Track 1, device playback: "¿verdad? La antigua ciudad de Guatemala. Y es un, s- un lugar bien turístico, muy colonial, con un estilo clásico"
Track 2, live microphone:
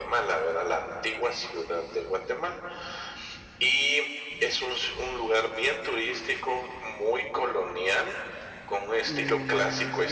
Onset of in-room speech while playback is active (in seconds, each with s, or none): 9.0 s